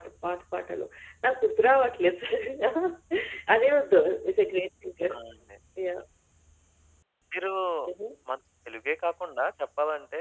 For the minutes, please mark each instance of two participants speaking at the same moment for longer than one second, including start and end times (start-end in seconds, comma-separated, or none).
none